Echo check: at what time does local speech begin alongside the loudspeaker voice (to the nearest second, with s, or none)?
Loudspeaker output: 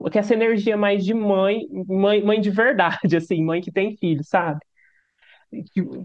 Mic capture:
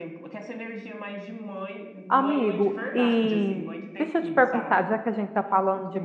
2 s